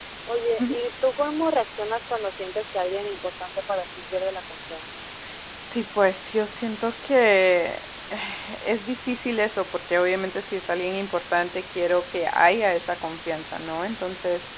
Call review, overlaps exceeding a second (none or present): none